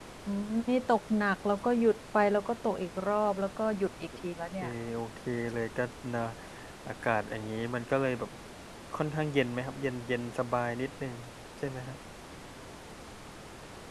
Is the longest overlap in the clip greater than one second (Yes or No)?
No